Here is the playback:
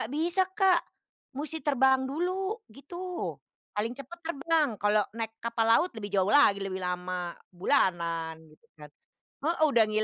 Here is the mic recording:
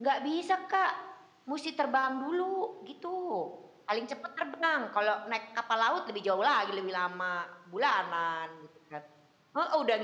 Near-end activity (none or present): none